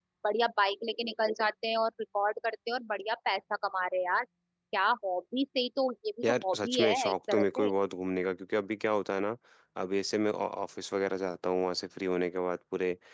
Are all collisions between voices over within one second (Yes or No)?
No